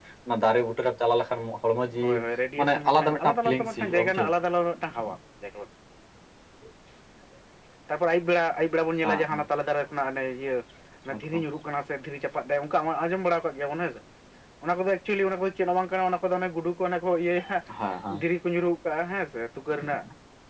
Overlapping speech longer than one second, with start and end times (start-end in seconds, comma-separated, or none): 2.6-4.3